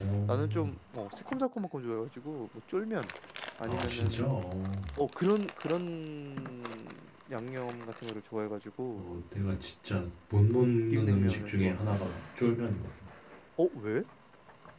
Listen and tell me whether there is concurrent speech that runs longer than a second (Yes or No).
Yes